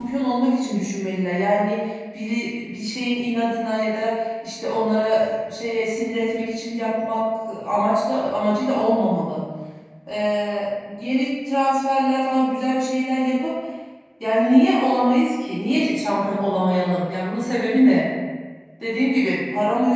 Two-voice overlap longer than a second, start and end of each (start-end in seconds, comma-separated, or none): none